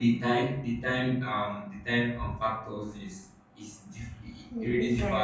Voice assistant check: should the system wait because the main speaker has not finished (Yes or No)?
Yes